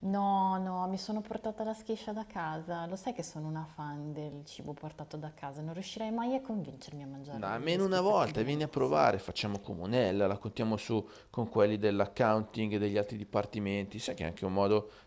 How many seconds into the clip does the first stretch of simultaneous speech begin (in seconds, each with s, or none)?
7.3 s